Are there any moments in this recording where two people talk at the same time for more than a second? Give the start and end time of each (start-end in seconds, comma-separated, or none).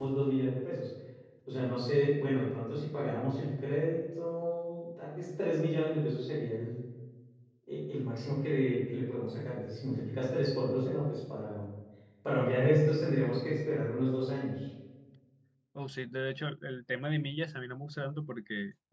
none